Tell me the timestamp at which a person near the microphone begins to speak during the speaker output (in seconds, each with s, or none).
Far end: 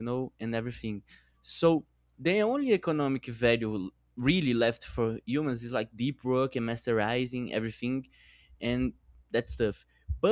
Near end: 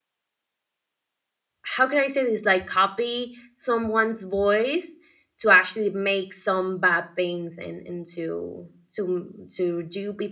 1.6 s